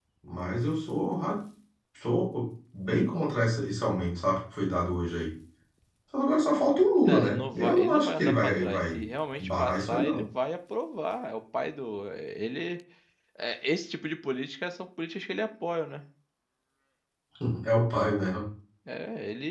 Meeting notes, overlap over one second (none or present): present